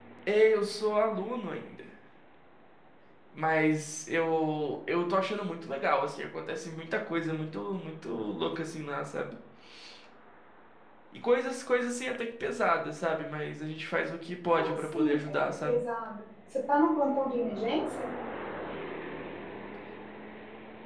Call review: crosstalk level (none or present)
present